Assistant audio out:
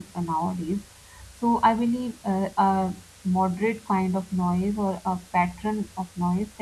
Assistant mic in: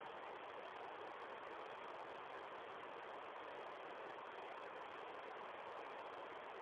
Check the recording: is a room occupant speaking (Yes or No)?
No